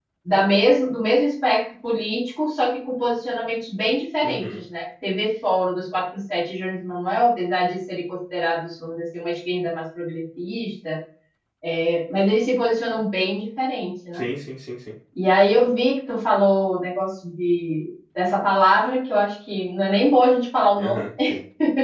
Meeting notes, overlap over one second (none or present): none